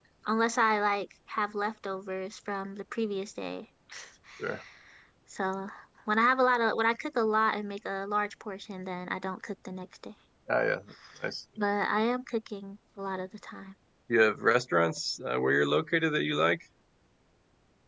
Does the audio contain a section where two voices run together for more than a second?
No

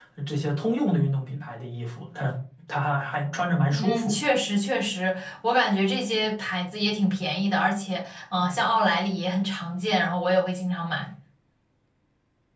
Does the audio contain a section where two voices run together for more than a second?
No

